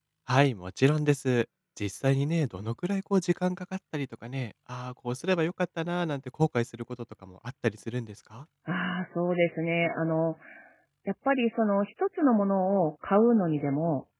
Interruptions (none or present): none